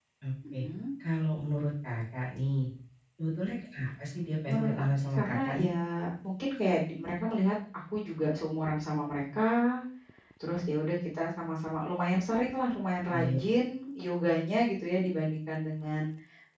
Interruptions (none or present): present